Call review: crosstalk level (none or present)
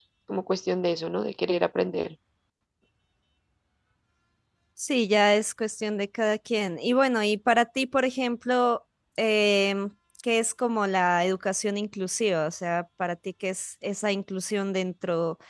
none